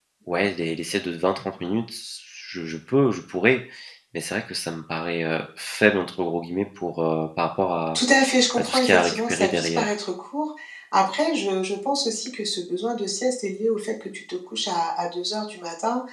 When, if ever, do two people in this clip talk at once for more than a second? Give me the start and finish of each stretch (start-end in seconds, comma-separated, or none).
8.6-9.9